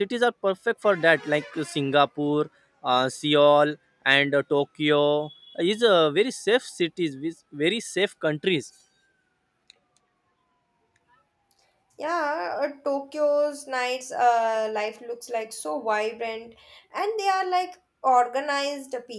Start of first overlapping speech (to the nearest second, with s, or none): none